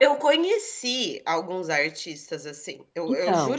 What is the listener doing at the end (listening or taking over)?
listening